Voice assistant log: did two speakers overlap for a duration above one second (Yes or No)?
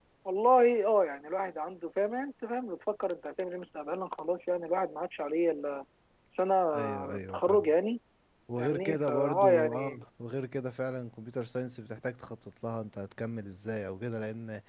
Yes